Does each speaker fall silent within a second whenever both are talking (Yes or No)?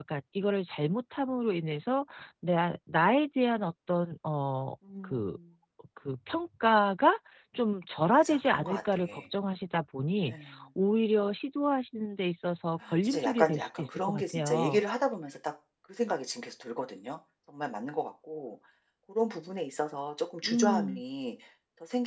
No